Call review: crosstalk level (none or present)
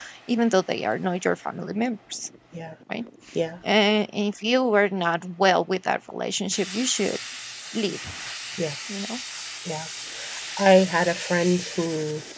none